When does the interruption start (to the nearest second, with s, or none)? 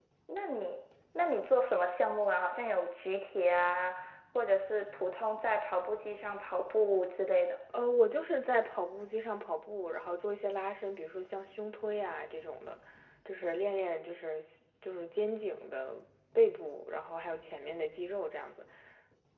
none